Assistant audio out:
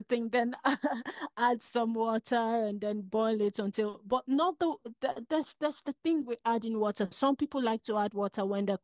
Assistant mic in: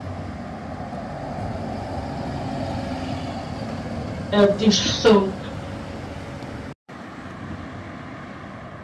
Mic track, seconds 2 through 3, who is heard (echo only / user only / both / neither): neither